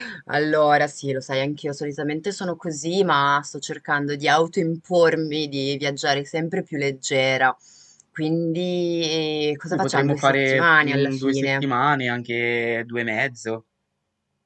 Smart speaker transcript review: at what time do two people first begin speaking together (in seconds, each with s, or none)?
9.7 s